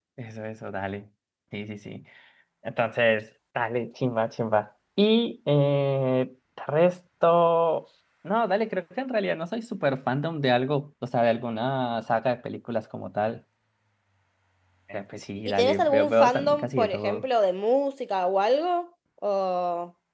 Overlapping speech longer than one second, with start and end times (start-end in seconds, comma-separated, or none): 15.4-17.2